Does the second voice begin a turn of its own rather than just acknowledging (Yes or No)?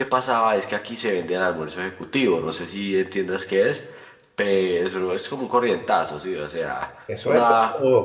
Yes